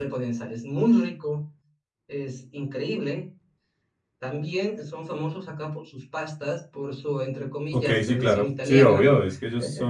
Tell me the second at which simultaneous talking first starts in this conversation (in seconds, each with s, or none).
7.7 s